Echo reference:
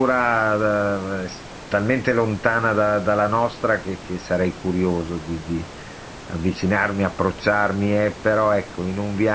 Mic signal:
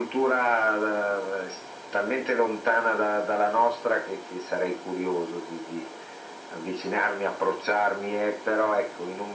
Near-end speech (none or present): none